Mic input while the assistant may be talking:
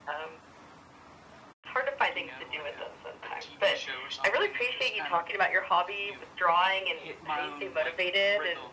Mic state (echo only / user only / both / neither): both